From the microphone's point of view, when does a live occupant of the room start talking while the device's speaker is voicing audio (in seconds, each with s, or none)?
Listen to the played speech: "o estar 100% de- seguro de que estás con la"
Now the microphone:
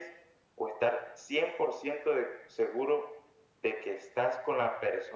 none